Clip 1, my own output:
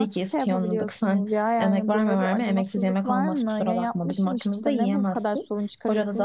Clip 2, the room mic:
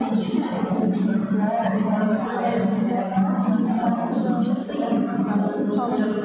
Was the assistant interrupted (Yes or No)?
Yes